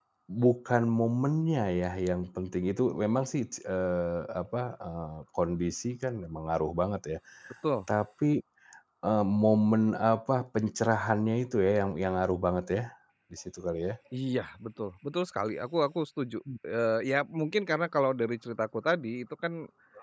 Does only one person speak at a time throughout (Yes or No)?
Yes